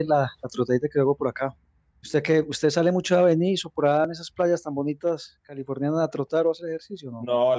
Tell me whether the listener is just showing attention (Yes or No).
No